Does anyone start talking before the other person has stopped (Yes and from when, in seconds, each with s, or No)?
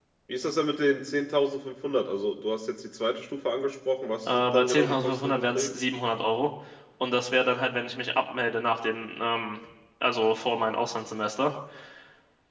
Yes, from 4.3 s